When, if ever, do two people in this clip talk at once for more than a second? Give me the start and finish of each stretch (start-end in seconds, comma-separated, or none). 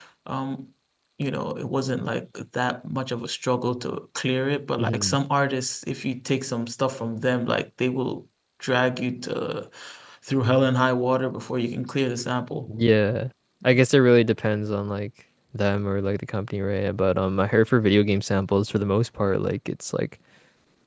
none